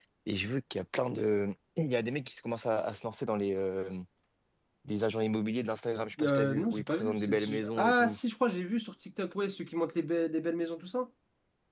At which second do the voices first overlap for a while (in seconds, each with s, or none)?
6.2 s